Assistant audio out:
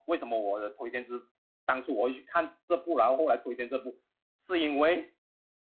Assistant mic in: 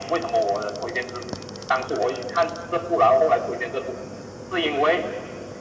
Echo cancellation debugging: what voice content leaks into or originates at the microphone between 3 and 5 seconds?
echo only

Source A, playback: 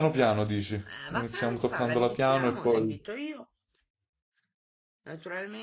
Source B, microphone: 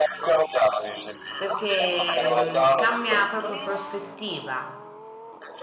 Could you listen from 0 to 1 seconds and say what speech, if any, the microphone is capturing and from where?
echo only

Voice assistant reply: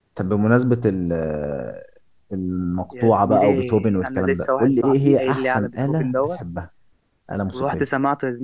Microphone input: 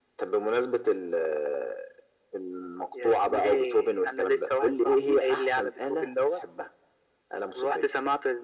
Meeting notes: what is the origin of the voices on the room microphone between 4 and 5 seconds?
echo only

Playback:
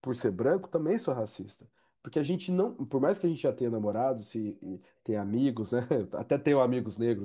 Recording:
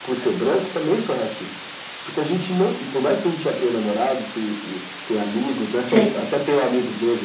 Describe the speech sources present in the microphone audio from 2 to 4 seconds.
echo only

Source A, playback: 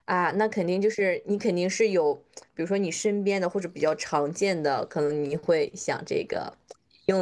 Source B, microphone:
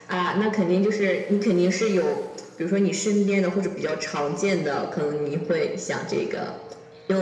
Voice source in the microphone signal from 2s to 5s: echo only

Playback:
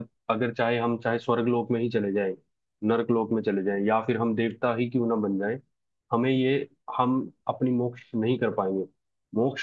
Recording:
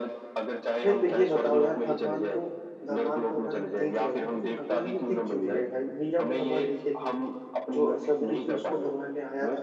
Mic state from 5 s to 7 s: both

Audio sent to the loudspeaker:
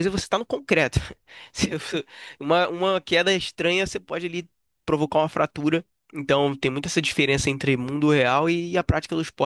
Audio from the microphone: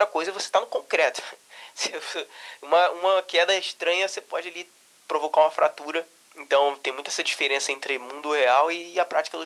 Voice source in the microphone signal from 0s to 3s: echo only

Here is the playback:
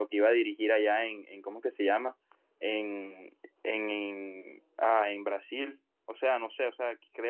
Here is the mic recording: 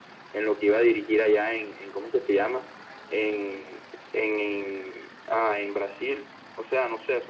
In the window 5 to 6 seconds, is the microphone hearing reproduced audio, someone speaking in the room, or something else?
echo only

